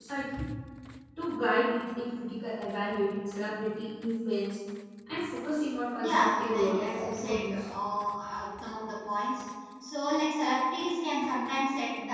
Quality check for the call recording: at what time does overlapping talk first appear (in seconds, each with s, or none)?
6.0 s